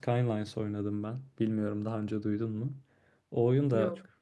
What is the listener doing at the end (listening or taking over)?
listening